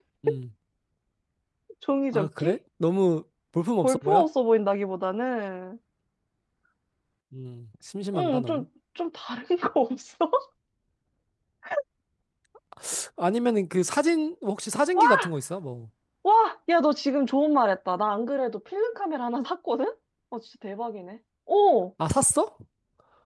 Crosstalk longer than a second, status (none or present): none